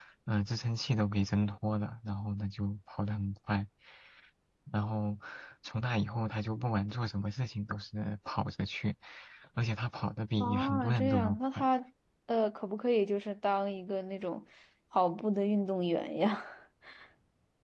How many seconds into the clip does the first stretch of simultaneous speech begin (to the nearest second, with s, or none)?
10 s